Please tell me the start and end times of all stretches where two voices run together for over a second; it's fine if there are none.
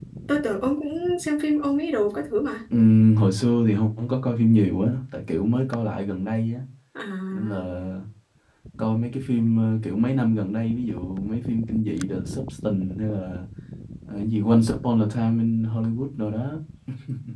none

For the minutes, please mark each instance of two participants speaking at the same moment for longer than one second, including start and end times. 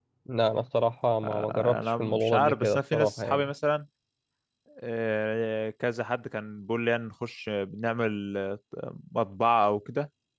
1.2-3.5

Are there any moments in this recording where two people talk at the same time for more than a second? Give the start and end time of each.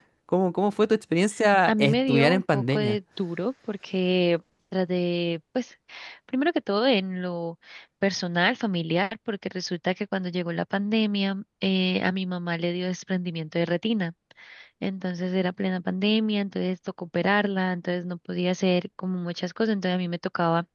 1.7-3.0

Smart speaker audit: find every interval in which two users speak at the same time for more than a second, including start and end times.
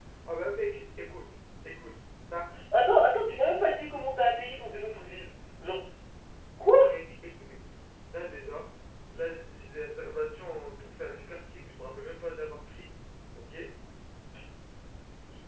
none

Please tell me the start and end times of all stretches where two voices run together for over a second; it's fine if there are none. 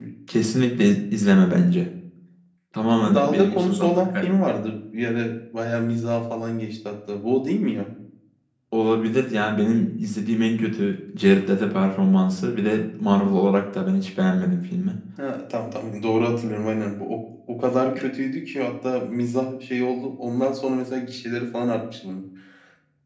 3.1-4.4

